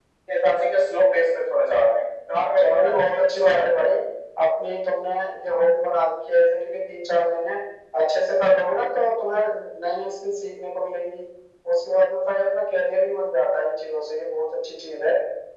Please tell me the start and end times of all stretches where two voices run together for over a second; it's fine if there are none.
2.6-4.0

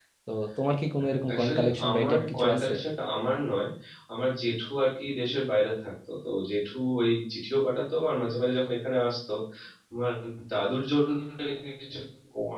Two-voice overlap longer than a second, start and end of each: 1.3-2.7

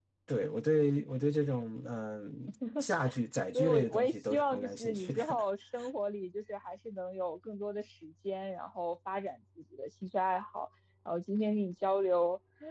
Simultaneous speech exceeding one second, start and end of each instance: 3.5-5.2

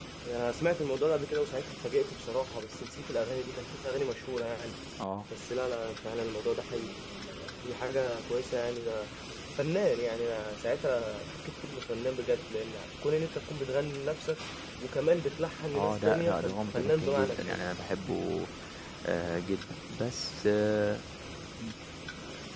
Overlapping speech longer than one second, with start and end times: 15.7-17.7

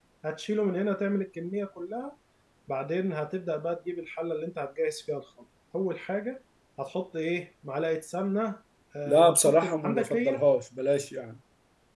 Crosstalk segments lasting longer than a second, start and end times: 9.1-10.4

